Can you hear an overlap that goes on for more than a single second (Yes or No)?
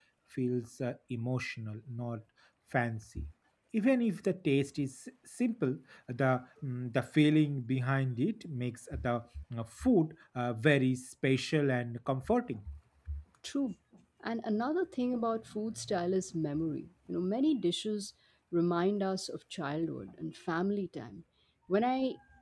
No